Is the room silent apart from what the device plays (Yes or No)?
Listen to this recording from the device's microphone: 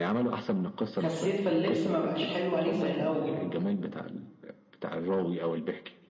No